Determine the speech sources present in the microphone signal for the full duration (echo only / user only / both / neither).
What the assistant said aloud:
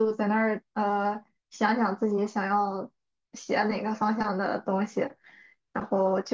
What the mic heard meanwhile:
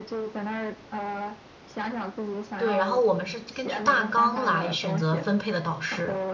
both